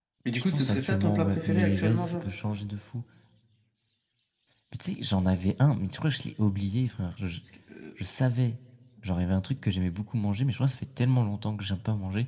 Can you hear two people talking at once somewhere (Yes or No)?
Yes